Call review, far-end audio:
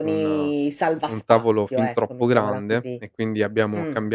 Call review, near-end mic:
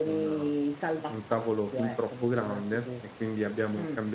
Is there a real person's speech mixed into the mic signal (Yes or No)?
No